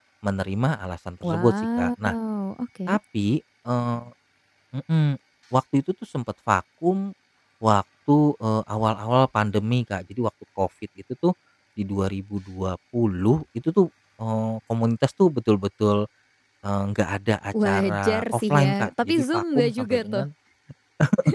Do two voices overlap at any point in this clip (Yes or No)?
Yes